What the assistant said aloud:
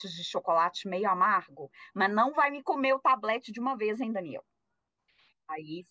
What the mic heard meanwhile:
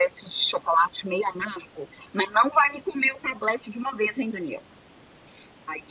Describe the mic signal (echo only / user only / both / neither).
echo only